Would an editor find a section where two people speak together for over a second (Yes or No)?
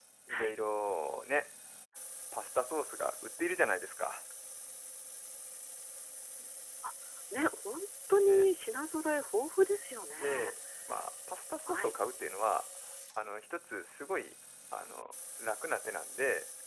No